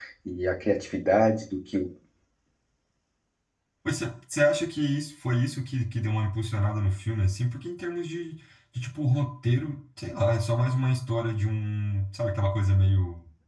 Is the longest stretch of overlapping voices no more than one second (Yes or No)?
Yes